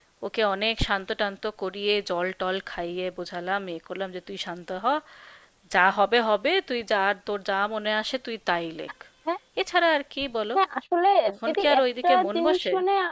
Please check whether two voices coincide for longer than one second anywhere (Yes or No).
Yes